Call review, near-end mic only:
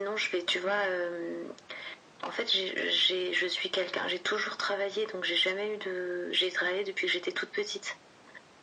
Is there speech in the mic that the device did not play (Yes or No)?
No